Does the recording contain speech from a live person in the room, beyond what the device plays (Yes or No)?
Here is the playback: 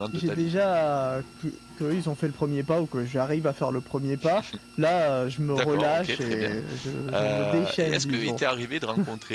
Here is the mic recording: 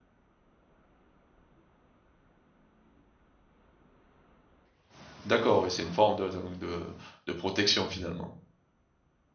Yes